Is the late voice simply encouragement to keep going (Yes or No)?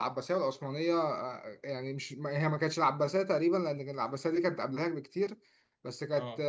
Yes